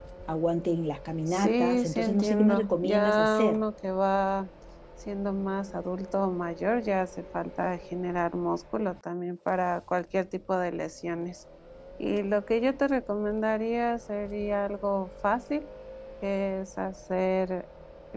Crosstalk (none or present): present